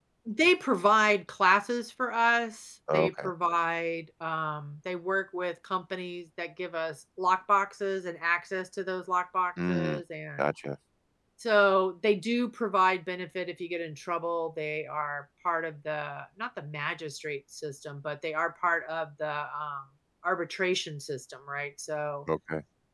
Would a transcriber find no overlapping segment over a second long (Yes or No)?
Yes